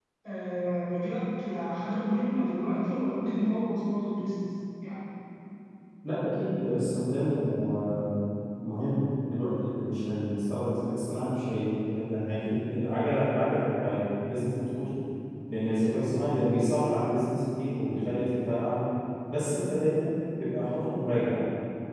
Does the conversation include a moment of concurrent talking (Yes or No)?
No